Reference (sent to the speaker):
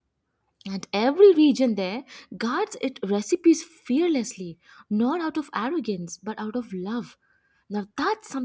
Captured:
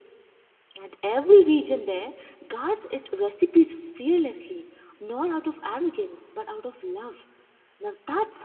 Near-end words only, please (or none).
none